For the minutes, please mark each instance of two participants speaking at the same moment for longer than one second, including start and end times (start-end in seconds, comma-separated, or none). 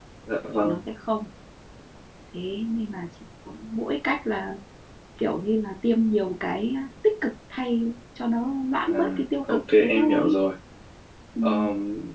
8.8-10.4